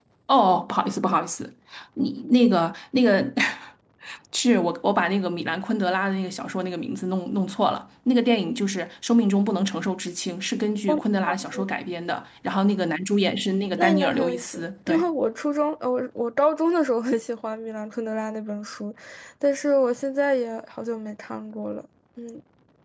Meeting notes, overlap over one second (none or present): present